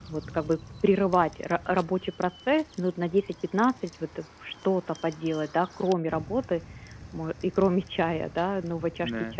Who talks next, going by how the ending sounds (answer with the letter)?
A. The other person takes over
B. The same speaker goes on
B